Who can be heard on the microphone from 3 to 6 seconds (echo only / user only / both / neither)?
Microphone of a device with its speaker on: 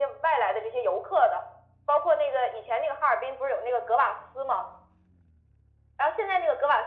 echo only